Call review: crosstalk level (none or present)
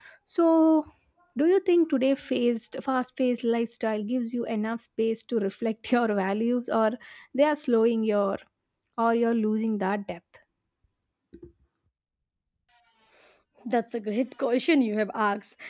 none